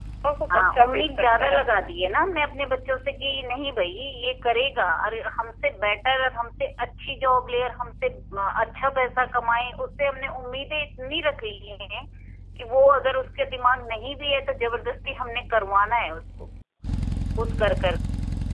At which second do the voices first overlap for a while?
0.5 s

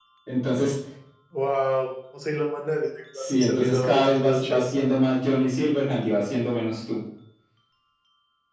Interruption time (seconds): 3.1 s

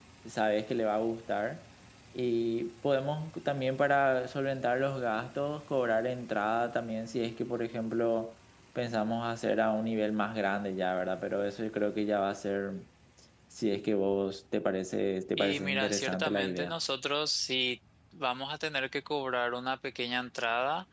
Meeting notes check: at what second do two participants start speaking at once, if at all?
15.4 s

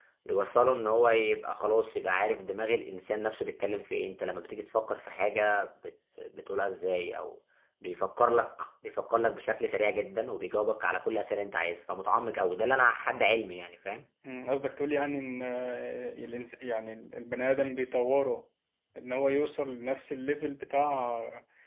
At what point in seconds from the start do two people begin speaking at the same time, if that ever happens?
none

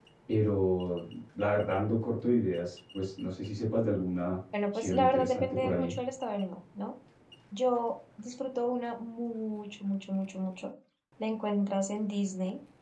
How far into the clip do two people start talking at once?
4.5 s

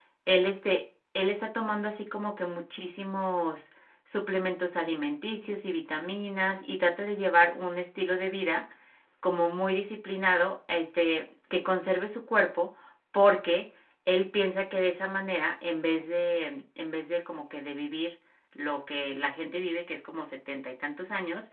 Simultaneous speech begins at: none

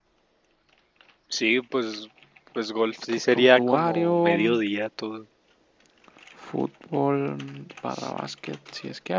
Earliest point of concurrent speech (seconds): 3.3 s

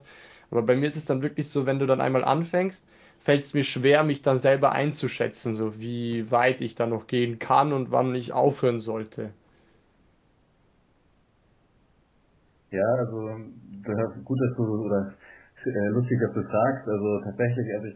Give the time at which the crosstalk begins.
none

